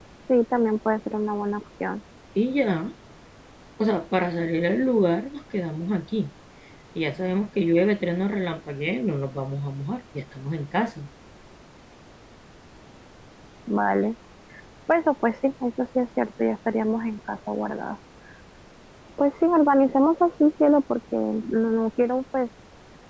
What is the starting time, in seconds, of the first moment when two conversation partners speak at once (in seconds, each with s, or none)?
none